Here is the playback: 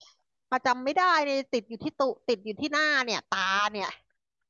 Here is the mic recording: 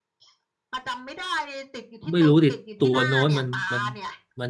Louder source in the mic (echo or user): user